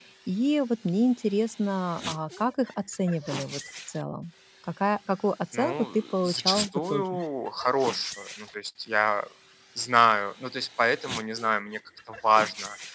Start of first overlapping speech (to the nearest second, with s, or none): 6 s